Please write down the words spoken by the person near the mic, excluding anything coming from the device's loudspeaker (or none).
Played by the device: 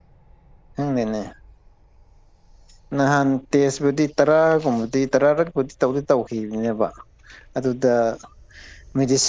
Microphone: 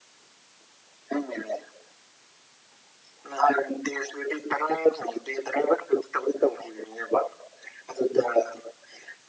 none